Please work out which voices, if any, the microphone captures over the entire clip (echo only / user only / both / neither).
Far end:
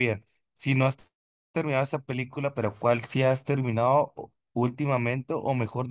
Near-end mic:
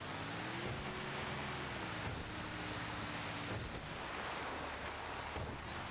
neither